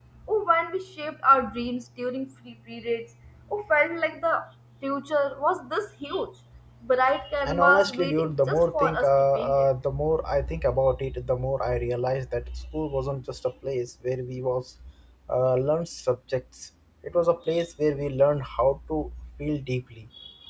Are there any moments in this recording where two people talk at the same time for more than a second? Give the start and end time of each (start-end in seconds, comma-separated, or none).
7.4-9.7